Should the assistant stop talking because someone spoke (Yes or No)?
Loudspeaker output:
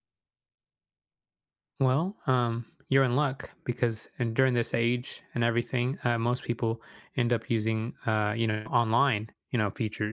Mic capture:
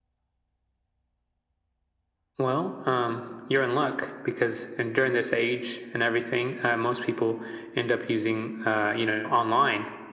No